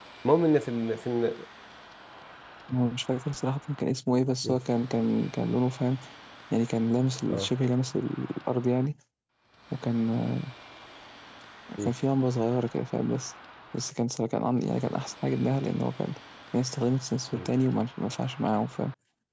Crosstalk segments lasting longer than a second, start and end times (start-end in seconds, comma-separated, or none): none